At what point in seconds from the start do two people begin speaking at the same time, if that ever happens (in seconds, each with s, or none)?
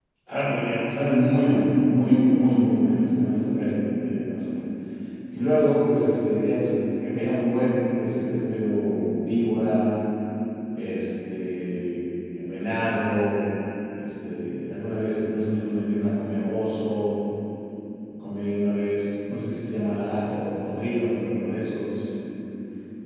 none